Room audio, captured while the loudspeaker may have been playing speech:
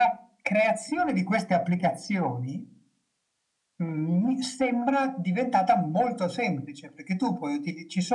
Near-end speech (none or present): none